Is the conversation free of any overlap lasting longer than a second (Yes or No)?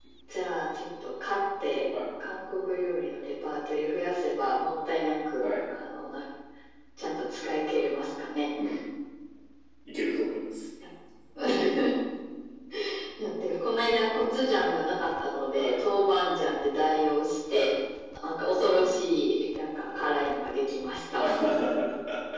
Yes